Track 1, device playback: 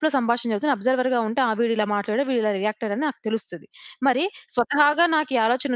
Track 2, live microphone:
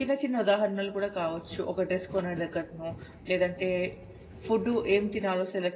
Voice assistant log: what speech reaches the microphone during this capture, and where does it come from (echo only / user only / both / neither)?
user only